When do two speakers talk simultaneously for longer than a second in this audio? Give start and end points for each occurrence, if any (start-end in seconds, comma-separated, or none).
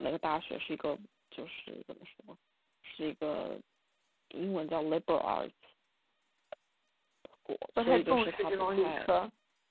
7.8-9.1